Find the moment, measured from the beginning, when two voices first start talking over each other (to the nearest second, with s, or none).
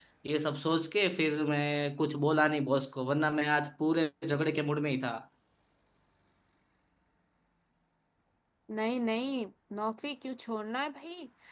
none